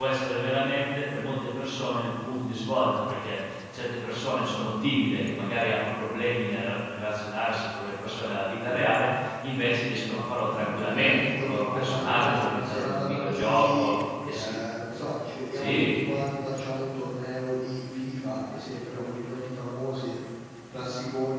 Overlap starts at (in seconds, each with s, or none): 10.4 s